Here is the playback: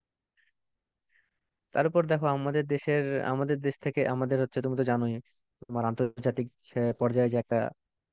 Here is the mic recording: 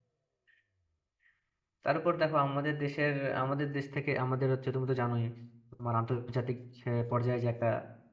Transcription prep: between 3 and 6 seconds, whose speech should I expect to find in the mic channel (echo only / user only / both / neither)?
echo only